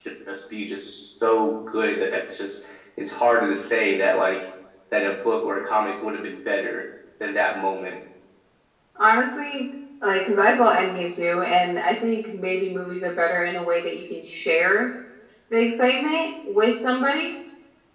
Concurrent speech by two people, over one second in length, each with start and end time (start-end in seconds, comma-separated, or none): none